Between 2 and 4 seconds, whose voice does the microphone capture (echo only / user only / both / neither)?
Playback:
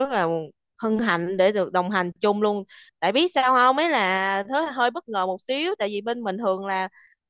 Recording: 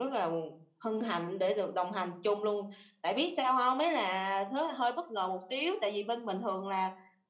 echo only